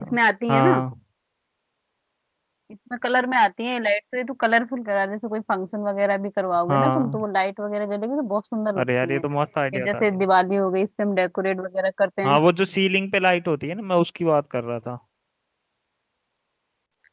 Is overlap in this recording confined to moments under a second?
Yes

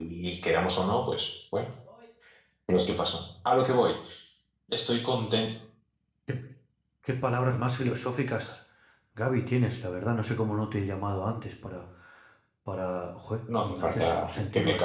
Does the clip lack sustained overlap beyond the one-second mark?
No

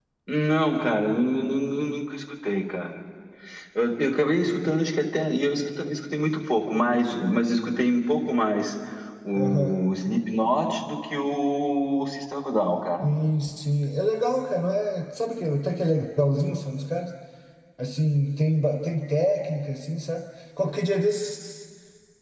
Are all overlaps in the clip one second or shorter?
Yes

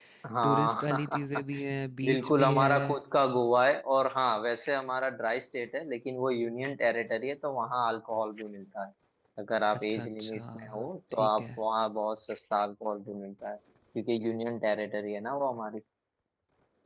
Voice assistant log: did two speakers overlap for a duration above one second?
Yes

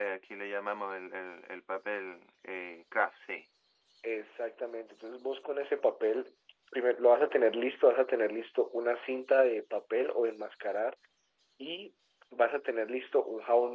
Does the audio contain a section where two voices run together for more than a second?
No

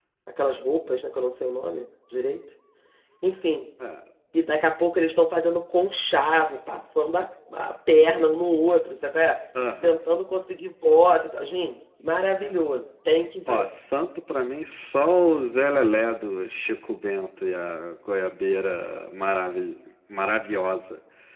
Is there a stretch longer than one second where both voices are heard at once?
No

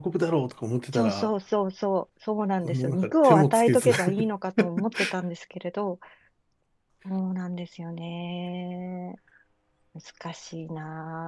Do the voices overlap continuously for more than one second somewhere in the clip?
Yes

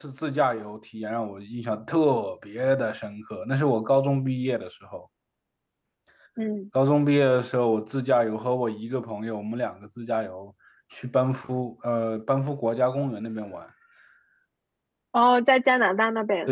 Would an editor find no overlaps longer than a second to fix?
Yes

